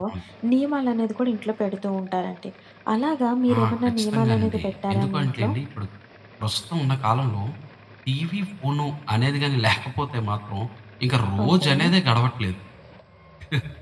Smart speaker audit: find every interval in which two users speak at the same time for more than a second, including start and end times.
3.6-5.5

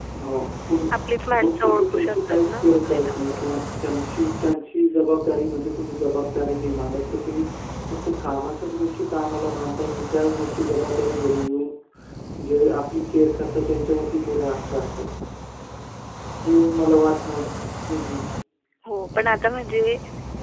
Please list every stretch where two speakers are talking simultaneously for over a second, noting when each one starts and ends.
1.4-3.6

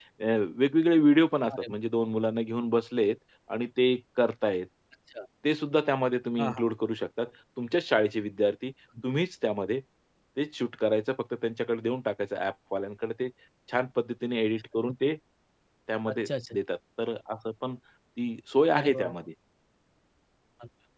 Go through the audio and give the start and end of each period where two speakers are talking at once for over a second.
none

